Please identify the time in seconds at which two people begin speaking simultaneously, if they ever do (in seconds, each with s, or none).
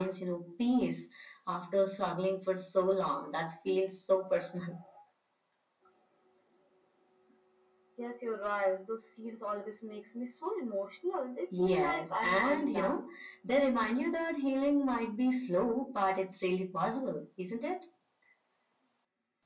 11.5 s